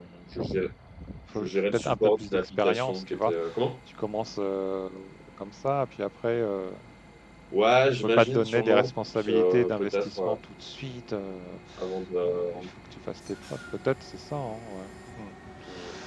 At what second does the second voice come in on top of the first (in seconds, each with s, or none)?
1.4 s